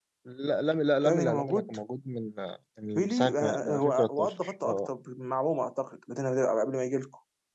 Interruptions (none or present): present